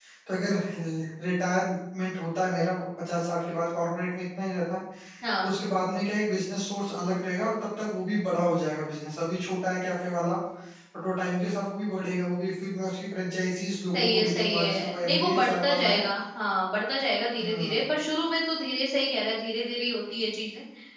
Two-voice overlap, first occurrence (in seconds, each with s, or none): 13.9 s